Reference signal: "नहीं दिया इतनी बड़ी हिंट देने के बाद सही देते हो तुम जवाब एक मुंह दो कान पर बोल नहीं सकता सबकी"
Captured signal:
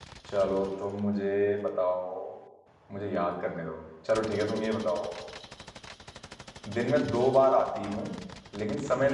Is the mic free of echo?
Yes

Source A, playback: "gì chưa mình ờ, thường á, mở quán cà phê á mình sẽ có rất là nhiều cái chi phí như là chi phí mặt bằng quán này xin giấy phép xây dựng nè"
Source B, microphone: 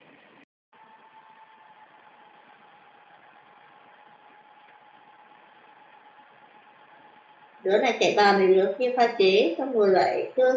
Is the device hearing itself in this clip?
No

